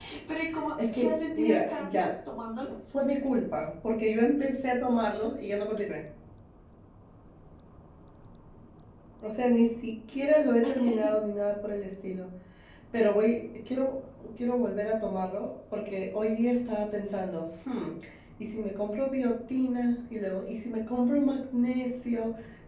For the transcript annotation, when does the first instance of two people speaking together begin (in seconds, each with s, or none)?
0.9 s